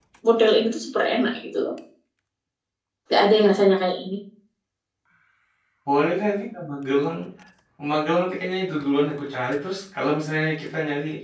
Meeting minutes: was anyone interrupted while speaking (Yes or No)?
No